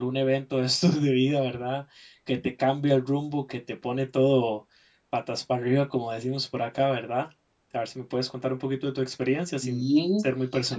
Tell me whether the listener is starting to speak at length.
Yes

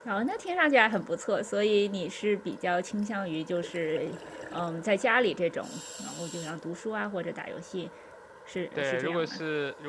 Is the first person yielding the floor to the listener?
Yes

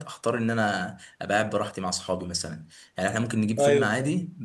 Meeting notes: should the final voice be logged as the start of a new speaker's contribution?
No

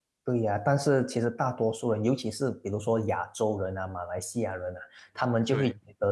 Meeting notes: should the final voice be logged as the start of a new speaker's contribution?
No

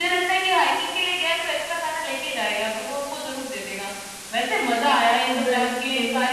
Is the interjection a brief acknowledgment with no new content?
Yes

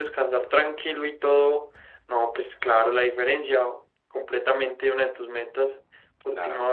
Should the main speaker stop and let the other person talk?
Yes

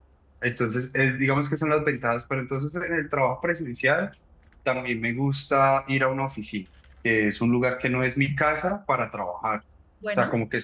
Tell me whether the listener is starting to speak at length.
No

